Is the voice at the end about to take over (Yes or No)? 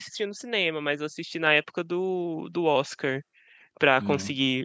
No